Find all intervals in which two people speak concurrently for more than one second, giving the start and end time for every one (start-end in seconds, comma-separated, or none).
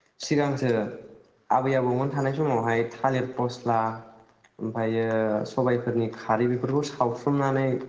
none